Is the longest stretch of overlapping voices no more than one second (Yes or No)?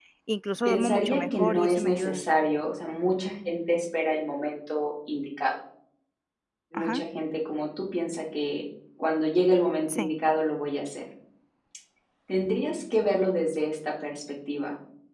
No